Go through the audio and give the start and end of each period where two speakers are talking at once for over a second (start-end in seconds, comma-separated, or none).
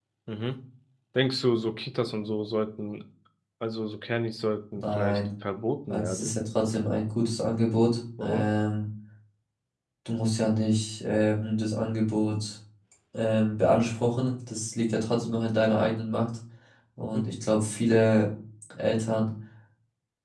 none